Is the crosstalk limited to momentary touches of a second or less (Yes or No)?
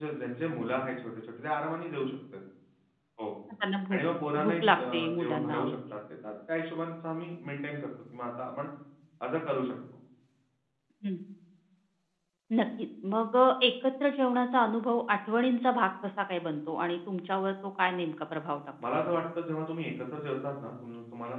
No